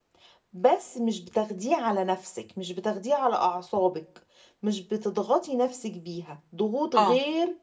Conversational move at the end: listening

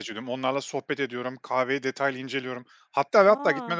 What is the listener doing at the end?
listening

